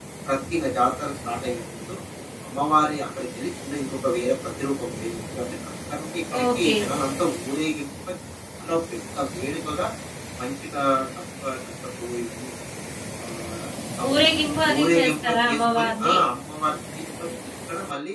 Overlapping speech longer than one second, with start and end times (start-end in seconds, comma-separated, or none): 14.8-16.2